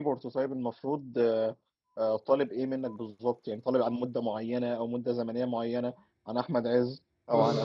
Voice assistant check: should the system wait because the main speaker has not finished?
Yes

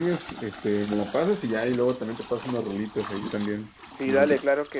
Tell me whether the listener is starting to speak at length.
Yes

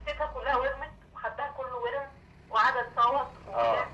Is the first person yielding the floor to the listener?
Yes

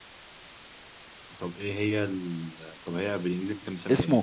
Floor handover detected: Yes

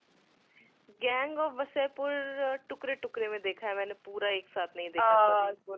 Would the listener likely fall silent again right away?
No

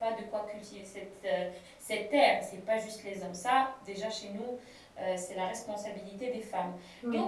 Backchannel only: Yes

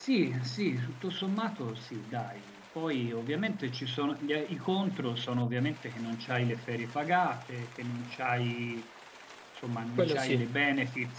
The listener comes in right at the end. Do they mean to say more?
No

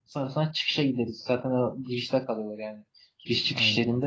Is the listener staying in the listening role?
Yes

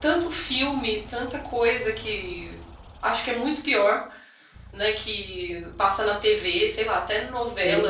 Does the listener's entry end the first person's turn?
No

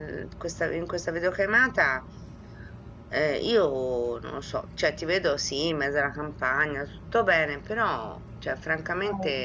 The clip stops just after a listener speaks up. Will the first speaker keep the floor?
Yes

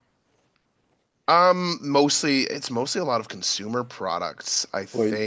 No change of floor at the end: Yes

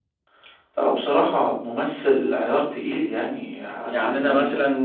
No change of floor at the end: No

